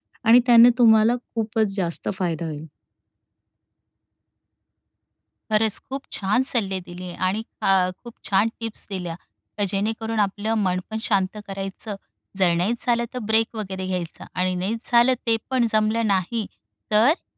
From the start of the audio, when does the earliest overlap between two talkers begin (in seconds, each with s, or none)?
none